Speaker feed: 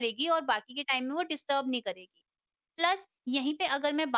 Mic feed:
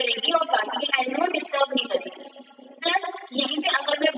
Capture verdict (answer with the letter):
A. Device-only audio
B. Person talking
A